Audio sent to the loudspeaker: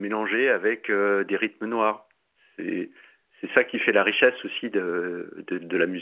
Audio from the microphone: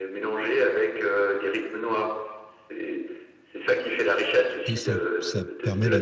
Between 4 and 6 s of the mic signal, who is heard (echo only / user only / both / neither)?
both